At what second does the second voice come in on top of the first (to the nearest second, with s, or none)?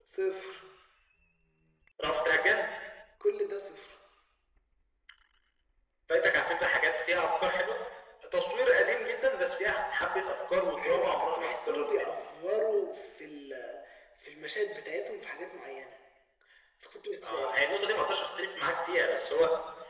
11 s